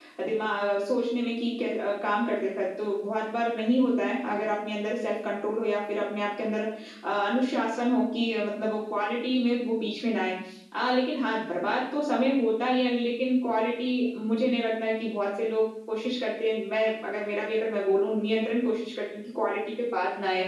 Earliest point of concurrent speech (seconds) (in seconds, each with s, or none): none